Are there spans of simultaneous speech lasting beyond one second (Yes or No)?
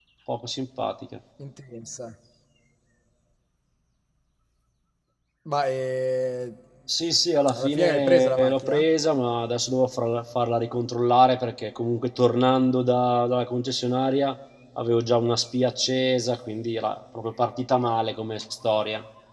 Yes